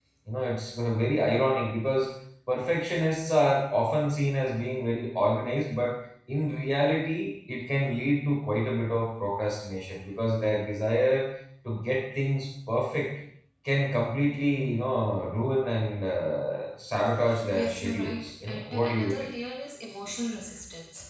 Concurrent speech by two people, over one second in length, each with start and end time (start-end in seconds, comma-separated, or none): 17.5-19.3